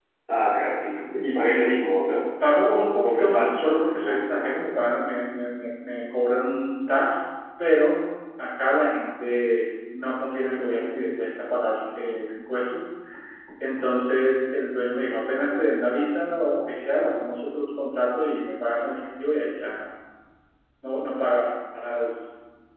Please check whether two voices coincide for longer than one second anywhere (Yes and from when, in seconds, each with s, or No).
Yes, from 2.4 s